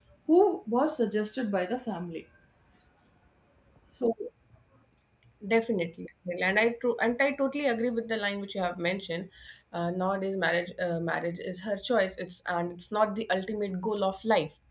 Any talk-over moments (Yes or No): No